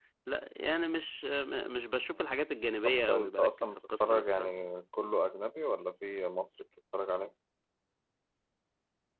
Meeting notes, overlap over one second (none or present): present